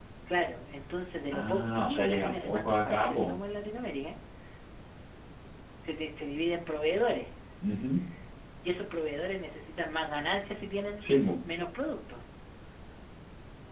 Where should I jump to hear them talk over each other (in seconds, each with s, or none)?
1.3 s